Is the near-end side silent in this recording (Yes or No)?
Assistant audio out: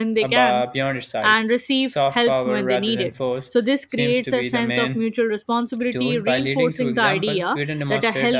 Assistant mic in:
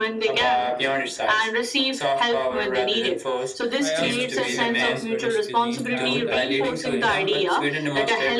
No